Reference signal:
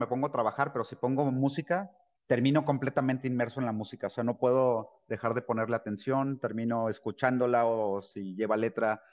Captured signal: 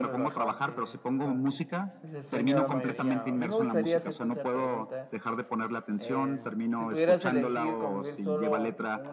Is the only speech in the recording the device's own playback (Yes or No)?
No